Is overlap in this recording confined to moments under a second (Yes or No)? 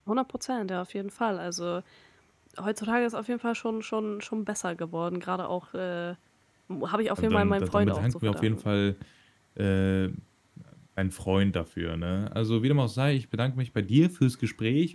No